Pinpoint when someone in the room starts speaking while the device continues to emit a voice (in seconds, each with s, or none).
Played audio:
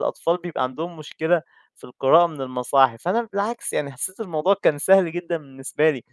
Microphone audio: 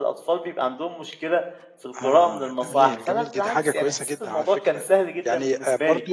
2.0 s